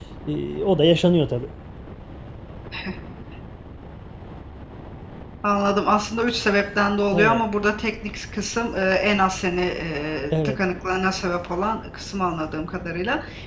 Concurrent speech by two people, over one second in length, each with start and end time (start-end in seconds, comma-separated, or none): none